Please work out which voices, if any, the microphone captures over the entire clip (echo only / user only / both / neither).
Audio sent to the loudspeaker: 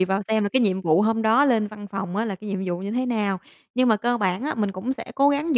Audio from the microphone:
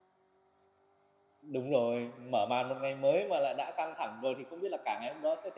user only